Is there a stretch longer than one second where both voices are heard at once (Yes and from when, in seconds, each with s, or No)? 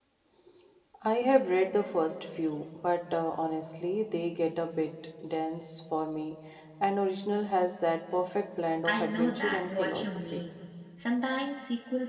Yes, from 8.8 s